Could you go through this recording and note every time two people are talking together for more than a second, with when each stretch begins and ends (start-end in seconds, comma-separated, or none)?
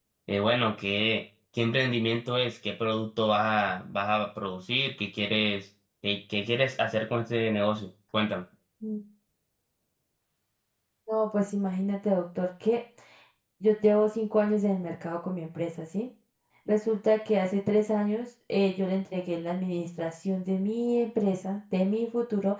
none